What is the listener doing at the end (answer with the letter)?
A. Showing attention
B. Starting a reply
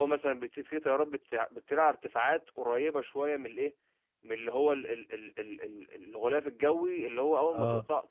A